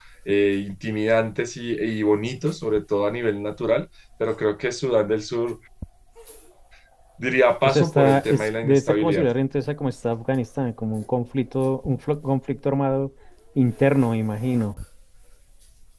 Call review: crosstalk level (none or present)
present